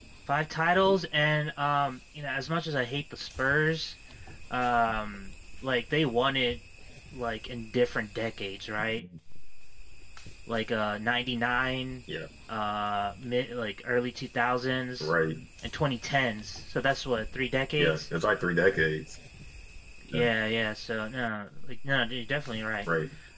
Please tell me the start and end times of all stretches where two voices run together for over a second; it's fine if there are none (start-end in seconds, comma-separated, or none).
none